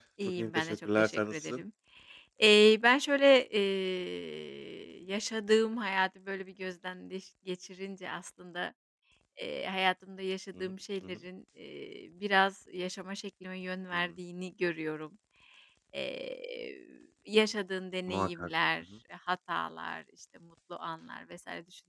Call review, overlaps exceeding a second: present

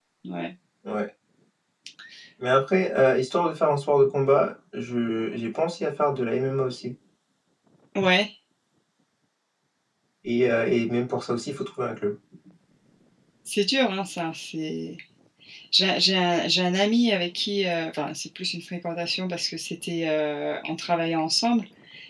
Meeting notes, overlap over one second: none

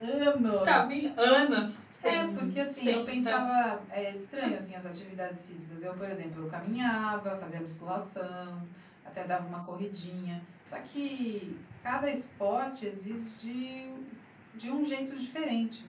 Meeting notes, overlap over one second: present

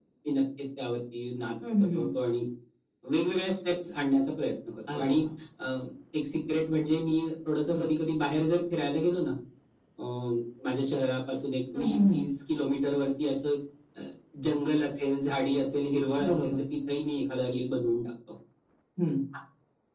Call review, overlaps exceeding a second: none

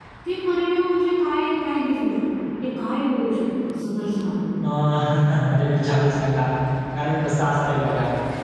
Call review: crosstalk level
none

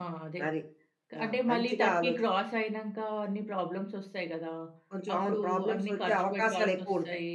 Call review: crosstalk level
present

